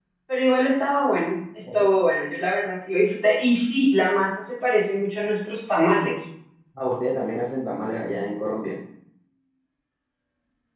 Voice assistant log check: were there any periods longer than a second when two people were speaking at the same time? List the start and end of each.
none

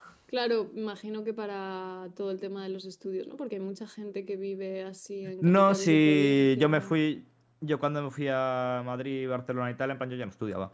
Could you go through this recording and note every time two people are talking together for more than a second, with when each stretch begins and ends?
5.4-6.9

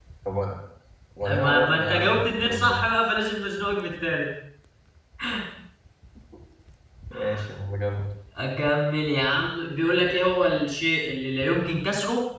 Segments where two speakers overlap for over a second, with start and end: 1.3-2.8

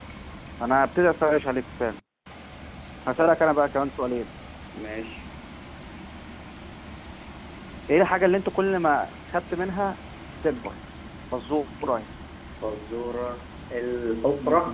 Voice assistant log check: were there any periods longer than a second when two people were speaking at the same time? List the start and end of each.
none

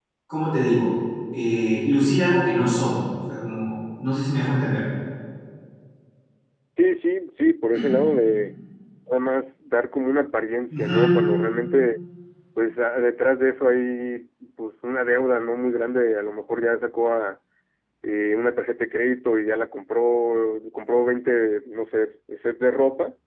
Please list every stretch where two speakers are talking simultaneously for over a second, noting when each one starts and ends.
none

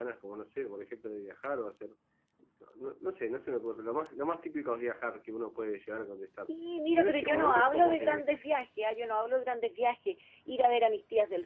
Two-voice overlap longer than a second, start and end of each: 6.9-8.2

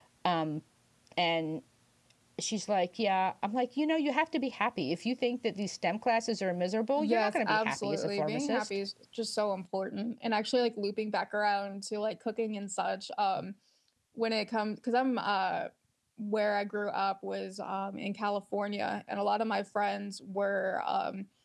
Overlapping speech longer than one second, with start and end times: 7.0-8.7

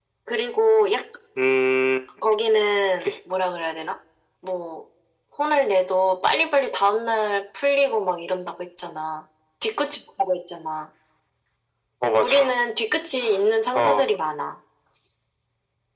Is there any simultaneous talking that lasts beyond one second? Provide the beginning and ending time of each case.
none

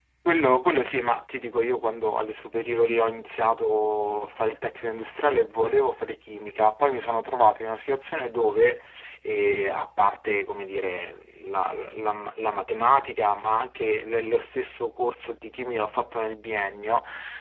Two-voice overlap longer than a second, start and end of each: none

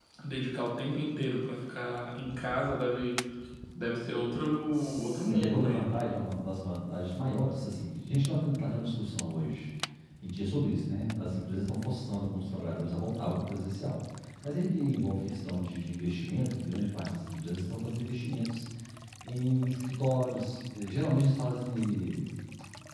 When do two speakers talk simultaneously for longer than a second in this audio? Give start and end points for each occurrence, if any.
4.7-5.9

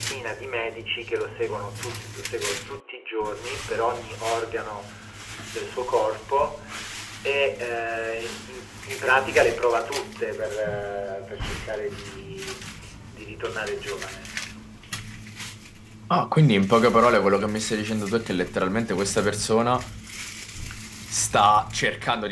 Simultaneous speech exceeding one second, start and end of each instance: none

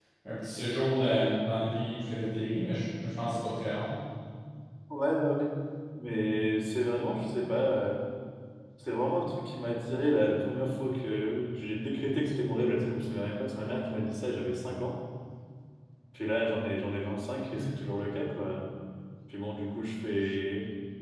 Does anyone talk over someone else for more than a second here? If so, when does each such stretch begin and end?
none

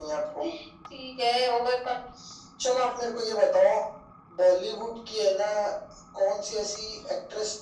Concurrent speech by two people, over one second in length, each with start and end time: none

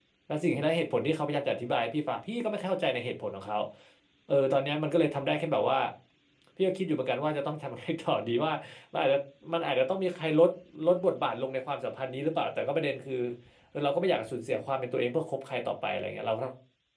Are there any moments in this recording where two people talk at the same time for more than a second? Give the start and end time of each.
none

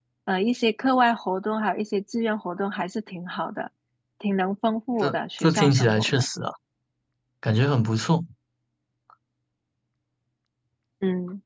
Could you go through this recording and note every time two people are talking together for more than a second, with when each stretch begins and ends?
5.0-6.2

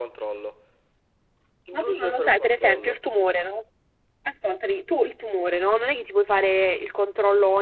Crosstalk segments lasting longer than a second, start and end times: 1.7-3.1

